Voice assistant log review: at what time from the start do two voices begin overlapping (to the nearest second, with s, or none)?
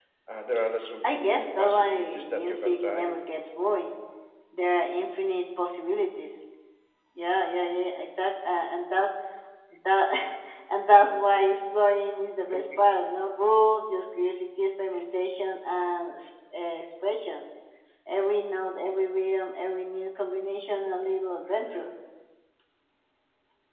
1 s